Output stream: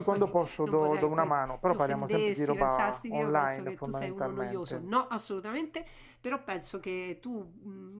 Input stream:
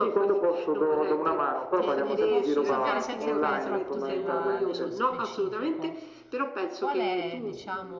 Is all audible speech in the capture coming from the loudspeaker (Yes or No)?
No